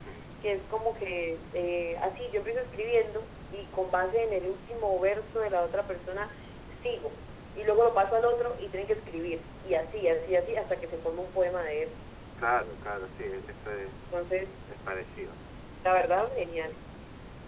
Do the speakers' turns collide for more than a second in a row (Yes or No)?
No